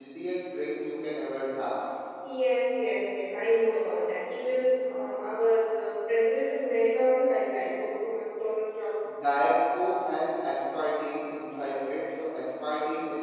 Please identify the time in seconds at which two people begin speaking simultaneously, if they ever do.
none

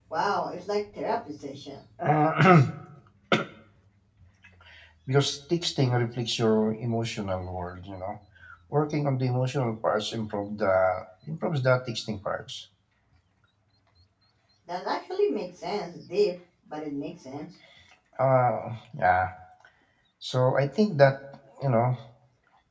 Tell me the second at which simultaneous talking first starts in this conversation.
none

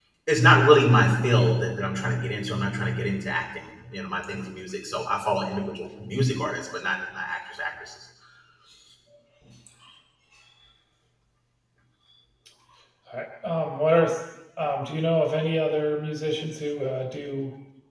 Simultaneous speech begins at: none

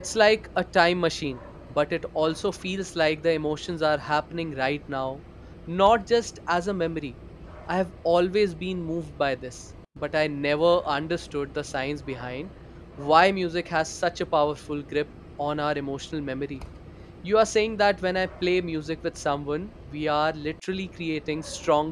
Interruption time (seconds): none

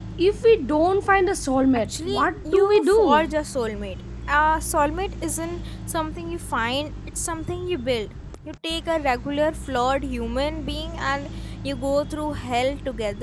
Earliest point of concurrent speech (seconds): 1.9 s

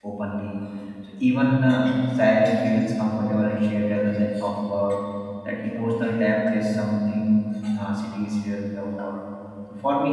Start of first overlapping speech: none

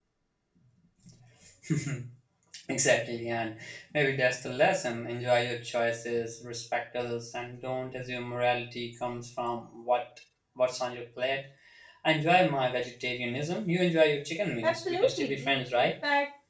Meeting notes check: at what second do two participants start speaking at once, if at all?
14.6 s

